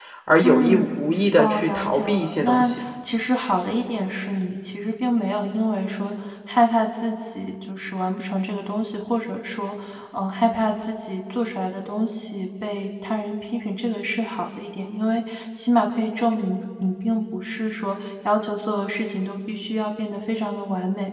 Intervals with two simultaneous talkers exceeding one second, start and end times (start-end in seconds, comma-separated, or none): 1.4-2.8